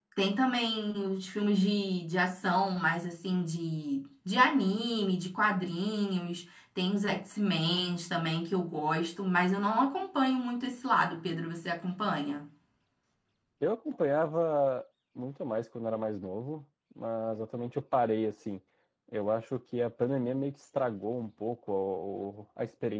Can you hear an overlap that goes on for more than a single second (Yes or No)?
No